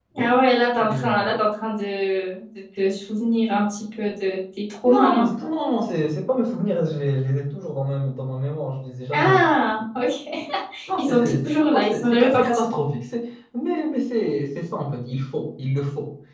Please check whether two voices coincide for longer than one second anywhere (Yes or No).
Yes